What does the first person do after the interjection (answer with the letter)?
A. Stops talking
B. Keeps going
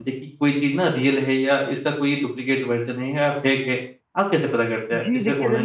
A